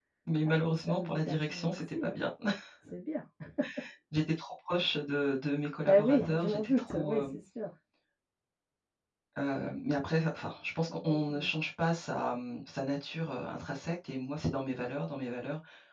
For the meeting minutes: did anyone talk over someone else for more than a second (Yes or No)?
Yes